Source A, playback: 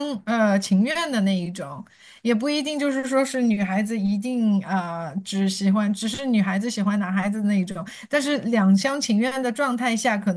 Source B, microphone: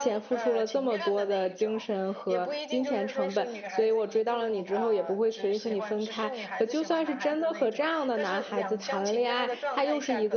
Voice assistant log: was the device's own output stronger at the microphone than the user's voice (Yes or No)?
No